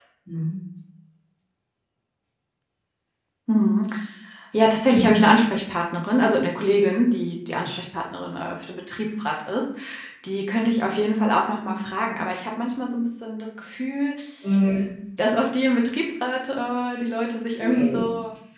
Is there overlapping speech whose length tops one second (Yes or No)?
No